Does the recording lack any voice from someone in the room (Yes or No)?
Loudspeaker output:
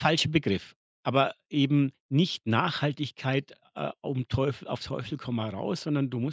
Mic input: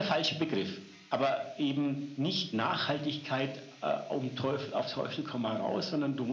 Yes